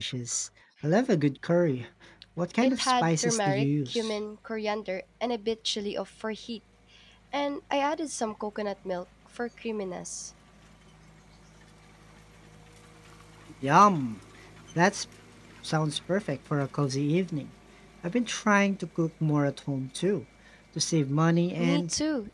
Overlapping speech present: Yes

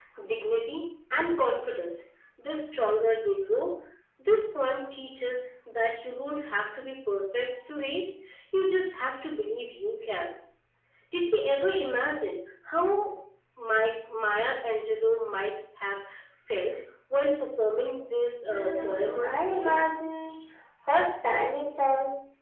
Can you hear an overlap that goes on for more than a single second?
Yes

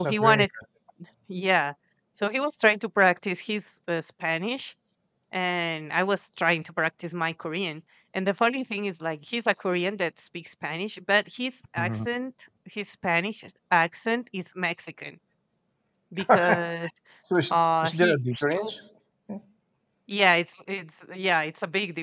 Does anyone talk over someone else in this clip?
Yes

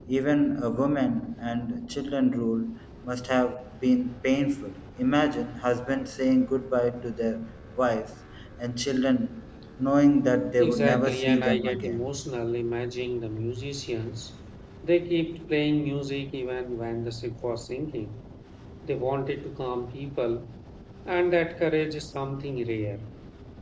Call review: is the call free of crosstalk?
No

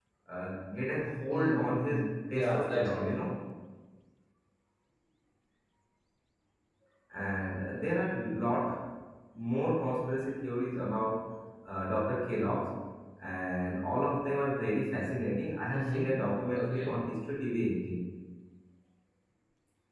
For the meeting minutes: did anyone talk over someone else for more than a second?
Yes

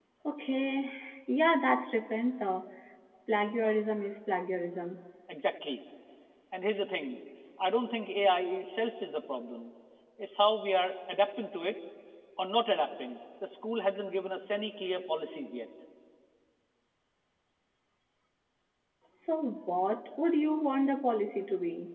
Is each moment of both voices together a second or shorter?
Yes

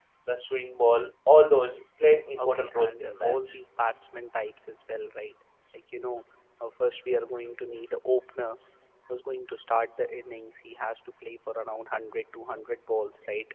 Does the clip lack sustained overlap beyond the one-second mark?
No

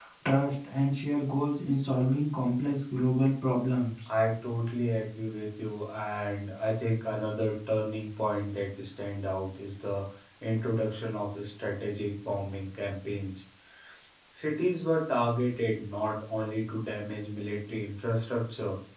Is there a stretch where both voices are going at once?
No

